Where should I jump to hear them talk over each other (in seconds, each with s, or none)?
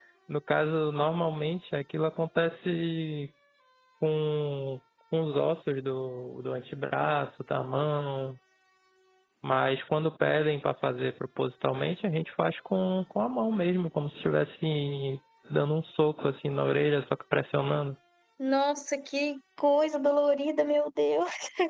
none